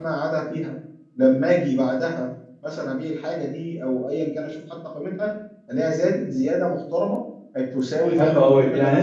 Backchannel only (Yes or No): No